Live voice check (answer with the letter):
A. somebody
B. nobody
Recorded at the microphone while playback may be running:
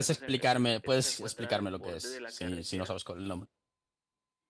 A